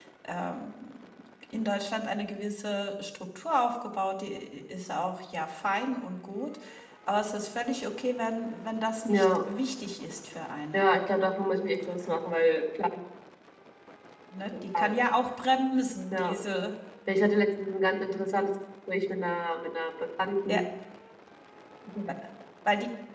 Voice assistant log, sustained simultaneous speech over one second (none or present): none